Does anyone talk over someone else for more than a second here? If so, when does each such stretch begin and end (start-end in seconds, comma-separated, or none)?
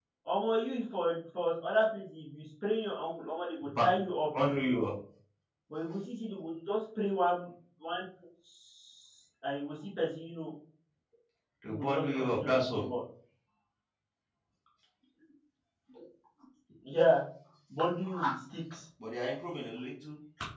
11.6-12.8